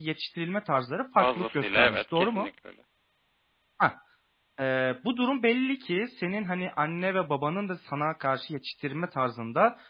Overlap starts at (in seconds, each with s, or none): 1.2 s